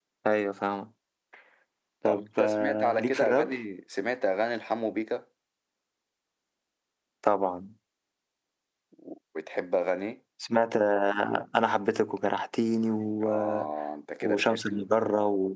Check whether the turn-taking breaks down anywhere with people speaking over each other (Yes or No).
Yes